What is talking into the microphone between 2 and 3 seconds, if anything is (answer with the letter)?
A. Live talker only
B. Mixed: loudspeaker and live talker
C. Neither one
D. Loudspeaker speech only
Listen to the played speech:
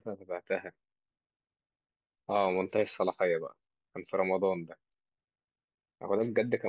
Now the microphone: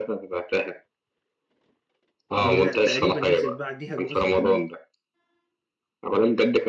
B